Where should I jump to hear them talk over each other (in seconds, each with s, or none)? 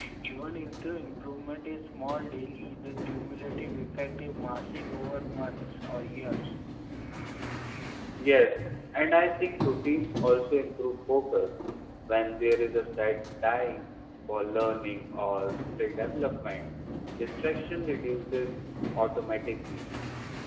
none